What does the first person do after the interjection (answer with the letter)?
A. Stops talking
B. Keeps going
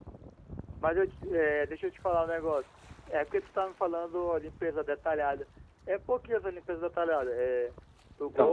B